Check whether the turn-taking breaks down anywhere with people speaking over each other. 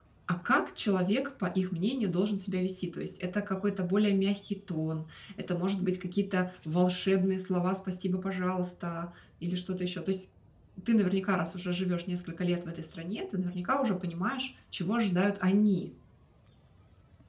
No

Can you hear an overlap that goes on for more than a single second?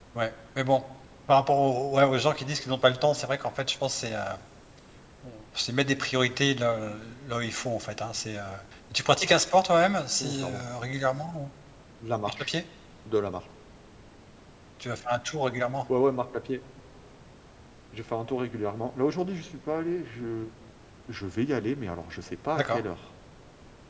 No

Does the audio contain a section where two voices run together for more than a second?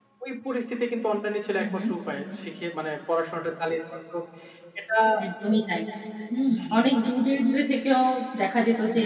No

